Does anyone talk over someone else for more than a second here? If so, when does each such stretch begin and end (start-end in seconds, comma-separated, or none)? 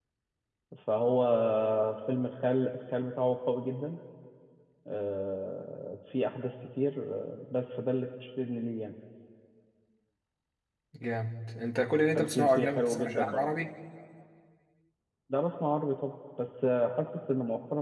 12.2-13.4